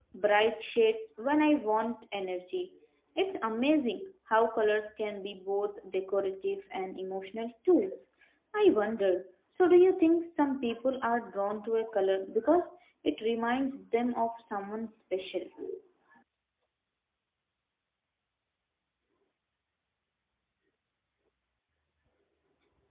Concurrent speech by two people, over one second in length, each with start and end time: none

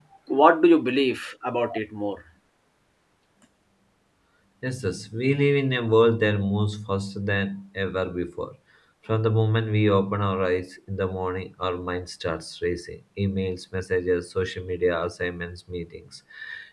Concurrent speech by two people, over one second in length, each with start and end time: none

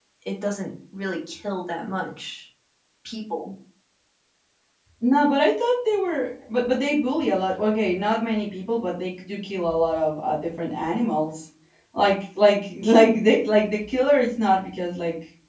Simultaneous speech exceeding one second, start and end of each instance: none

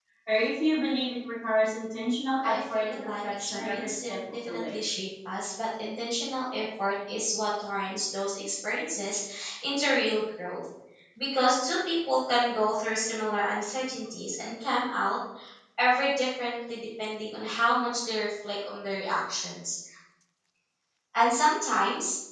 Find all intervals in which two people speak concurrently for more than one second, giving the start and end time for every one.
2.4-4.8

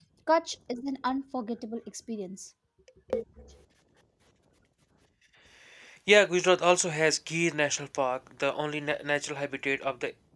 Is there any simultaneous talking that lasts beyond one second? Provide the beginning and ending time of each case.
none

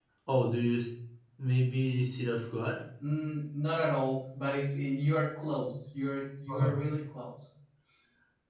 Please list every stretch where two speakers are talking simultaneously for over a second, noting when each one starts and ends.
none

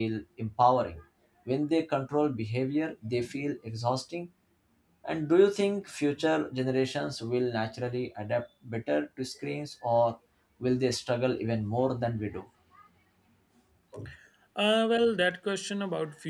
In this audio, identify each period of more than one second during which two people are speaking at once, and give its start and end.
none

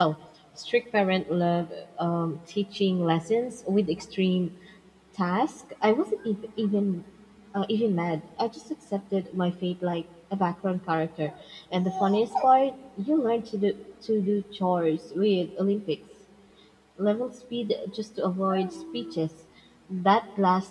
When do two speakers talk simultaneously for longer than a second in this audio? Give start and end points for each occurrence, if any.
none

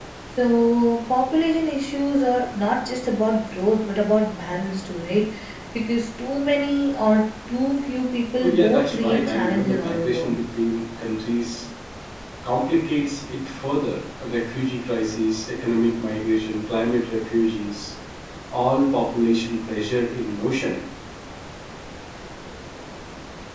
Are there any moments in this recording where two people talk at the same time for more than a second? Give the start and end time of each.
8.4-10.3

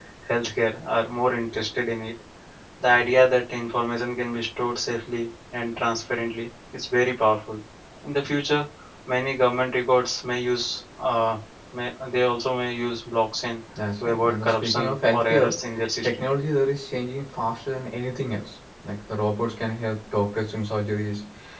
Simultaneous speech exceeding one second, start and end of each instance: 14.0-15.6

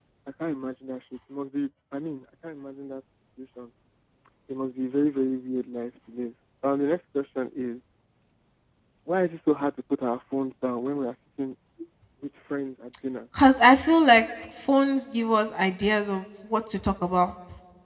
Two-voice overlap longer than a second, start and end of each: none

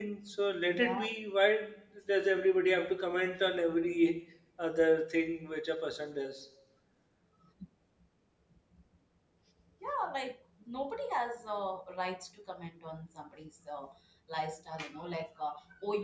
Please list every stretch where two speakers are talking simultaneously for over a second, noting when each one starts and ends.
none

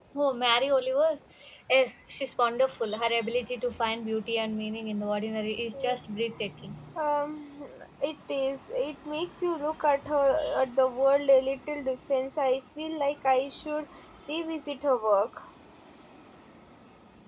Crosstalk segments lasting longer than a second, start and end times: none

